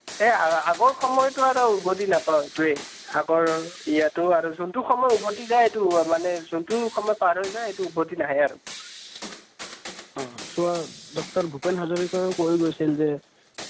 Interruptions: none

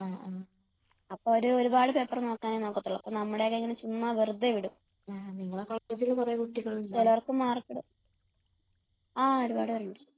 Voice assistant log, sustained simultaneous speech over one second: none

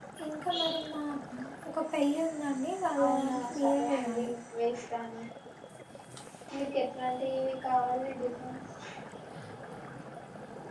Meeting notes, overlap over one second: present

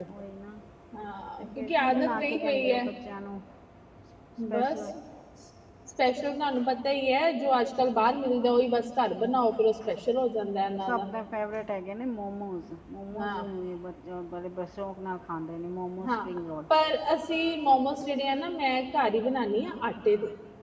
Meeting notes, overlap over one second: present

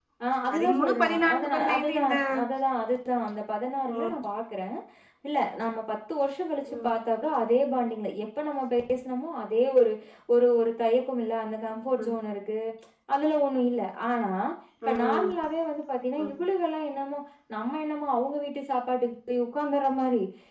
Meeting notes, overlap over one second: present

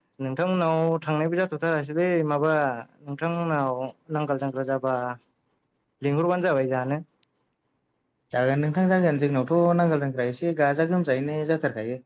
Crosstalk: none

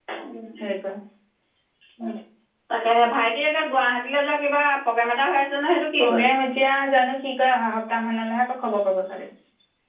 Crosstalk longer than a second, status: none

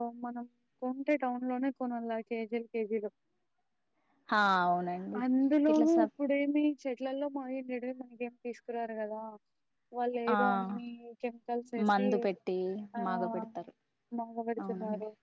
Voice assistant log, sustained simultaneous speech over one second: none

